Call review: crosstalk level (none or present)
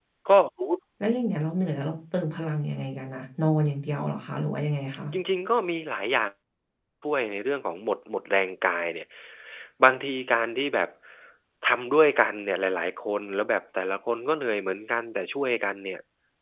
none